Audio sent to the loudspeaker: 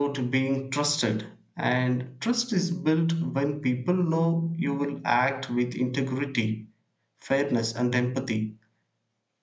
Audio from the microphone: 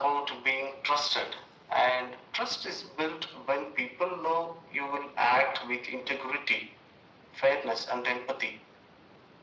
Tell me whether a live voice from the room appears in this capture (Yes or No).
No